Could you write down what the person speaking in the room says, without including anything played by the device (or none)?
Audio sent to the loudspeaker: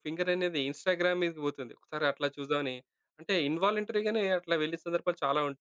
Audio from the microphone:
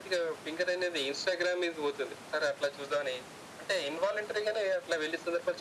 none